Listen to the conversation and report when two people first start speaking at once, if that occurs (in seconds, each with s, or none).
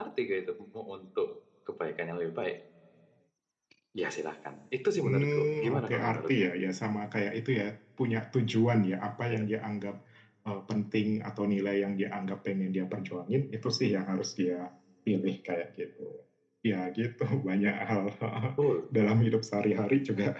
5.0 s